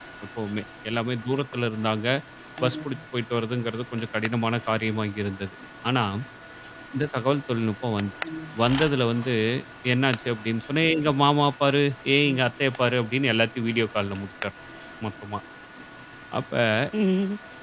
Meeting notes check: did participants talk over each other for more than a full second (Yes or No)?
No